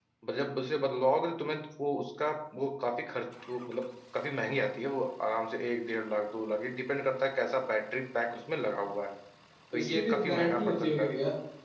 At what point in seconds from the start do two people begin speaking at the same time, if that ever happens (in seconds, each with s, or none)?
9.8 s